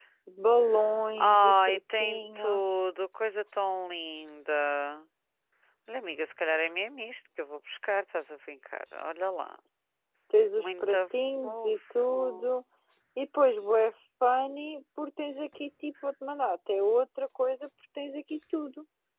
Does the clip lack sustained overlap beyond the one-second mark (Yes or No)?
No